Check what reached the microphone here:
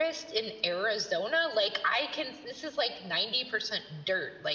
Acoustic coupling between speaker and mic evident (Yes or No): Yes